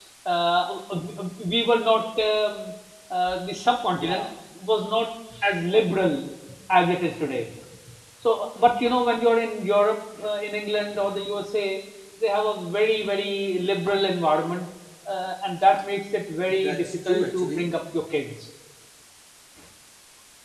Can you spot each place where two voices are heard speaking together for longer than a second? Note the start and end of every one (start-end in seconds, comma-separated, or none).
16.4-17.6